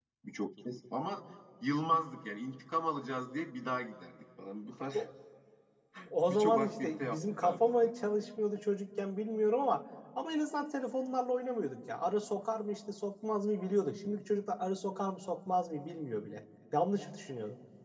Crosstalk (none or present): present